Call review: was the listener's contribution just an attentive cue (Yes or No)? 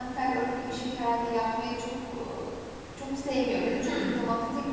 Yes